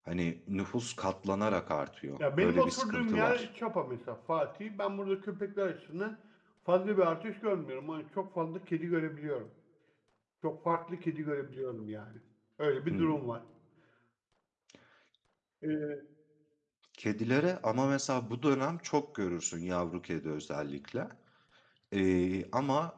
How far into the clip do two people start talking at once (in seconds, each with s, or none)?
2.2 s